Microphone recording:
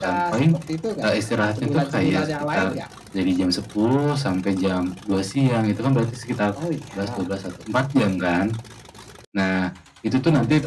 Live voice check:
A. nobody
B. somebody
A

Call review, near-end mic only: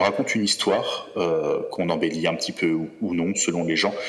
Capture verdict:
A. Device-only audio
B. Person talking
A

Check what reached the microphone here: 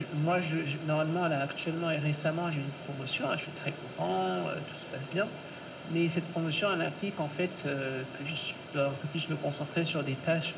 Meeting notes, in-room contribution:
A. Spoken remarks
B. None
B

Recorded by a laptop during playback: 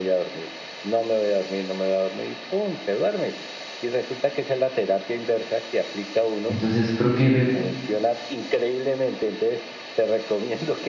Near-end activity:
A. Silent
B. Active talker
B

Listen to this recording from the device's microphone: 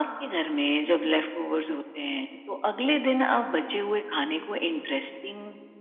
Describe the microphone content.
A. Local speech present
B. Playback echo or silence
B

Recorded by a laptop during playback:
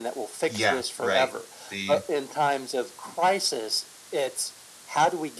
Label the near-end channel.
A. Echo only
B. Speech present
B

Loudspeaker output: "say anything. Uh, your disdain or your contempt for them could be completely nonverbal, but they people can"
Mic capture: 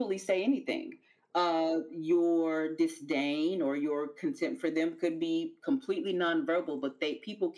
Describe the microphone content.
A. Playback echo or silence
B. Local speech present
A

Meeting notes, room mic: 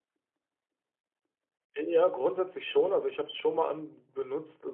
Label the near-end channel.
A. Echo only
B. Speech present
B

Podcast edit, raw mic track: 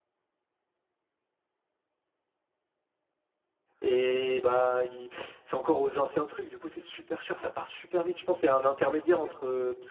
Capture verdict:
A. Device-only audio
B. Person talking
B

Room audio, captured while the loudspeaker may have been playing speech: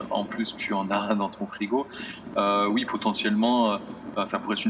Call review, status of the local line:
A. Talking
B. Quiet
B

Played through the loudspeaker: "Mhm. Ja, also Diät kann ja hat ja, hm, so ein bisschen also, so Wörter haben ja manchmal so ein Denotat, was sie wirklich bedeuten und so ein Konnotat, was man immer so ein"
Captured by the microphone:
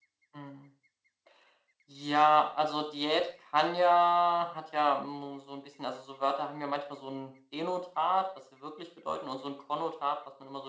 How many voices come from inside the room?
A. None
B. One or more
A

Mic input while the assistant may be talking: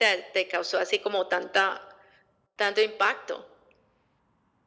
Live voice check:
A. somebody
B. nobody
B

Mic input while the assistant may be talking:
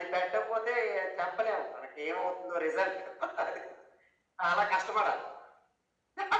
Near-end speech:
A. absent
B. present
A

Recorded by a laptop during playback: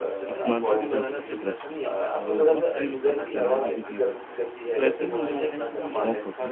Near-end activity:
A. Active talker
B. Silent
A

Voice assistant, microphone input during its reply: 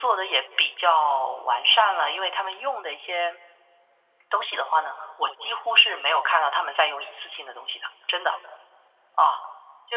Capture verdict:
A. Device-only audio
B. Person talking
A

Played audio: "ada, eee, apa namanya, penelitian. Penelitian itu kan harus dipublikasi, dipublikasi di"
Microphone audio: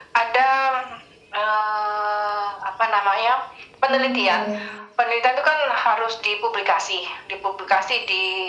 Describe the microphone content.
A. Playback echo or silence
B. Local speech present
B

